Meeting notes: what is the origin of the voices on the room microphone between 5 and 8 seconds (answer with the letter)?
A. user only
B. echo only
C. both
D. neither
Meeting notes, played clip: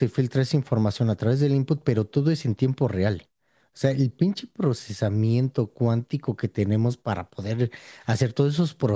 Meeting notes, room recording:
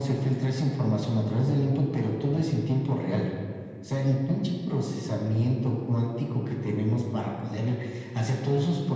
B